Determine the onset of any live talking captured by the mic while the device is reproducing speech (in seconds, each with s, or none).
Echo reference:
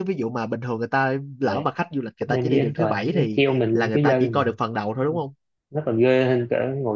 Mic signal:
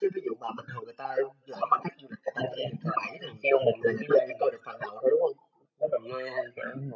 none